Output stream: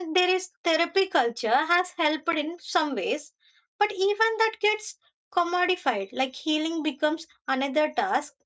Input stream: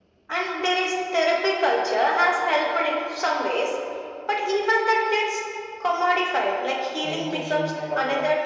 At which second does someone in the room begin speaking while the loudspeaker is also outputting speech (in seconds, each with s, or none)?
7.0 s